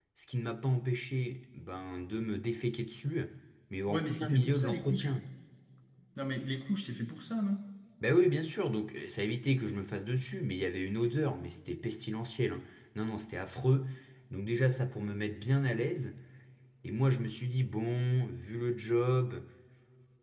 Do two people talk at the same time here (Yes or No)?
Yes